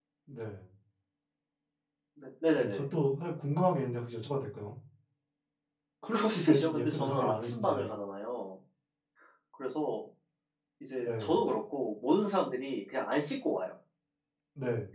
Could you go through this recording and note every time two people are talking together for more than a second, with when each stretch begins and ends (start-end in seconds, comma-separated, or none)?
6.1-7.8